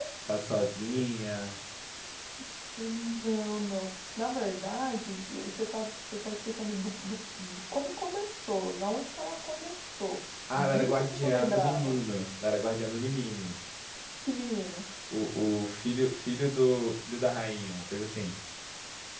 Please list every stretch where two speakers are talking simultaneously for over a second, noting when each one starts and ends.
10.5-12.0

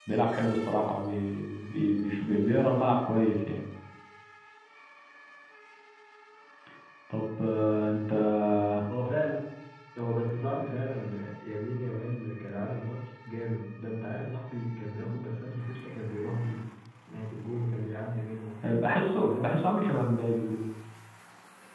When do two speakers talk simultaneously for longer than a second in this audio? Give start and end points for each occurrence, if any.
none

